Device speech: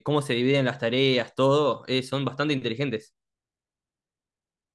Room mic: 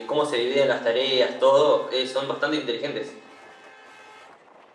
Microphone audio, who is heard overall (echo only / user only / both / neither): echo only